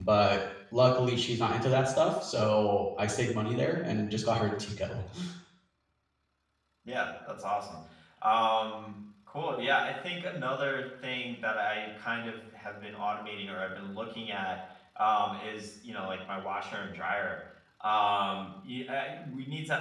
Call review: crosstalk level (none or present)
none